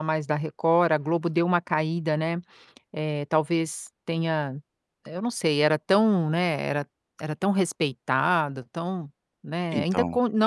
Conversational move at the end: listening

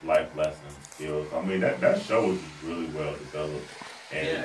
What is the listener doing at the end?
taking over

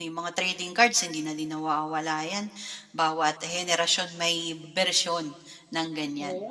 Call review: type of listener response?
taking over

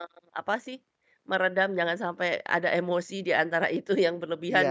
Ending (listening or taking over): taking over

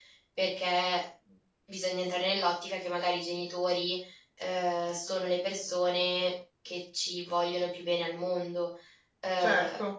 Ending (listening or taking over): listening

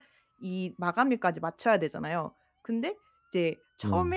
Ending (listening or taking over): listening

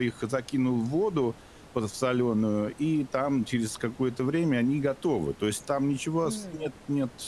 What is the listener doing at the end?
listening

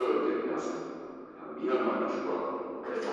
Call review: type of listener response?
taking over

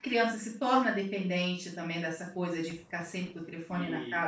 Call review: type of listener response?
taking over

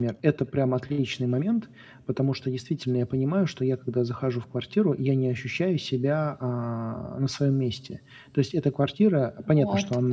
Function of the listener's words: listening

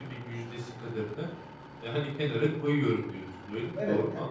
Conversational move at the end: taking over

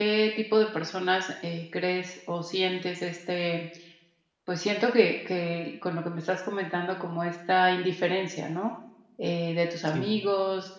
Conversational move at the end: listening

